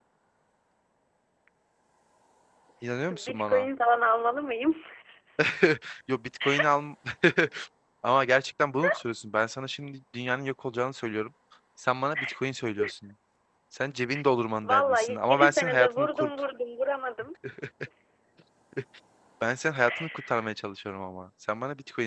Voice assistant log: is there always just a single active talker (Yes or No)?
No